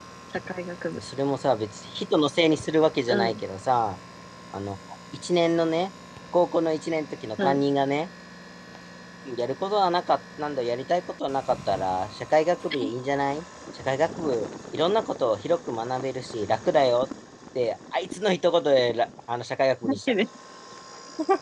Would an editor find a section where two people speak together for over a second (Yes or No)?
No